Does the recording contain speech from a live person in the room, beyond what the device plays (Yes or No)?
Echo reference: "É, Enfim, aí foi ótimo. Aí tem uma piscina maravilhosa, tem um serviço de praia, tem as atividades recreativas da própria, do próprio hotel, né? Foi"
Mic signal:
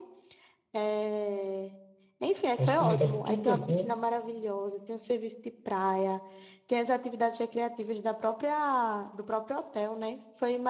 Yes